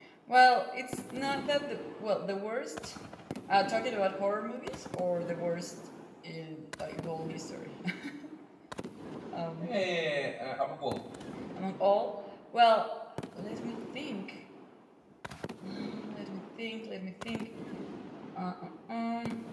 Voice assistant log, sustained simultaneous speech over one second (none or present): none